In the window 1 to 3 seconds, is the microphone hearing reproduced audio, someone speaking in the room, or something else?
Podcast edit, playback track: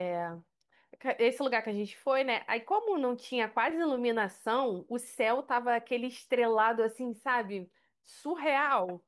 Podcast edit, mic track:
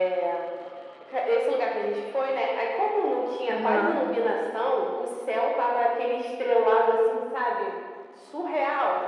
echo only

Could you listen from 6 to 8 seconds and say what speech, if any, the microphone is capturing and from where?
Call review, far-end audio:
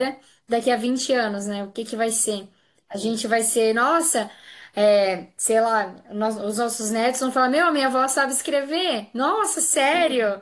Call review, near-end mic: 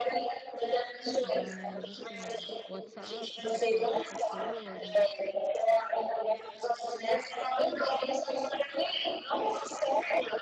echo only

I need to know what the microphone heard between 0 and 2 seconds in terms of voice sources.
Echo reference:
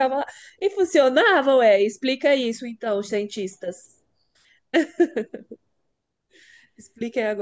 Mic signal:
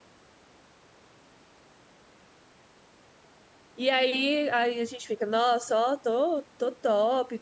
neither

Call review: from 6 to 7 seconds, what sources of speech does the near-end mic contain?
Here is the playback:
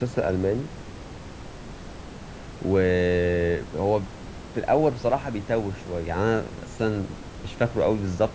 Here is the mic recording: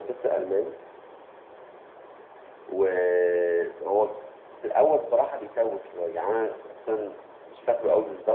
echo only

